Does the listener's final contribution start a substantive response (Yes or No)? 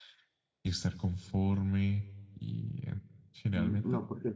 Yes